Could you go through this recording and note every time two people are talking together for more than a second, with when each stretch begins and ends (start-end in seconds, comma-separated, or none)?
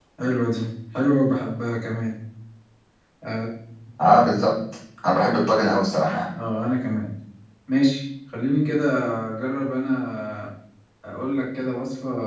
none